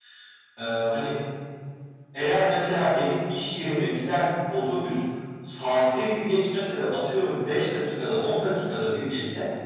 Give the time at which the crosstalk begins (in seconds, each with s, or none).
none